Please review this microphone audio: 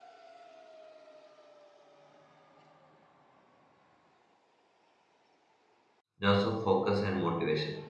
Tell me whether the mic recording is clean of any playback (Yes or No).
Yes